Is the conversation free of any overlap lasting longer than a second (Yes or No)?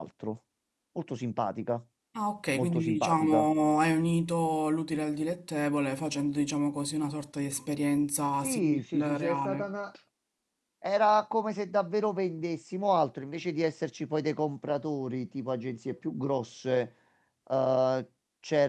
No